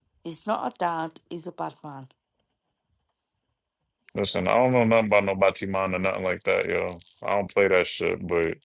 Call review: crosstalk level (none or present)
none